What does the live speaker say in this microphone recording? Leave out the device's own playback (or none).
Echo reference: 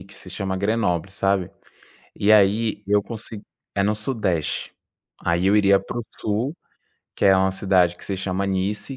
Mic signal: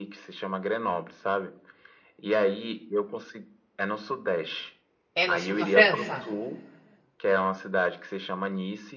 É no sul da França?